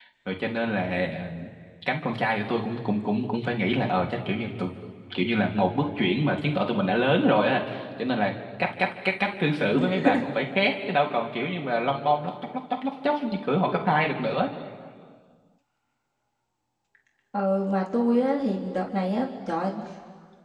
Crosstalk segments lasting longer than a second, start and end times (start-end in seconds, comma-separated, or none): none